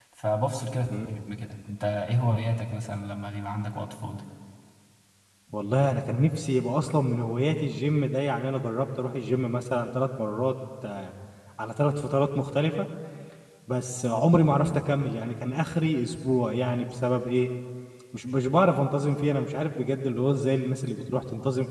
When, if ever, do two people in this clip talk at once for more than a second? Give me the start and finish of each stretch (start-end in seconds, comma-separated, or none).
none